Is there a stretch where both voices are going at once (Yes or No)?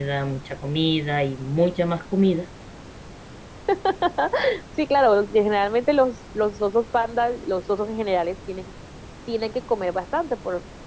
No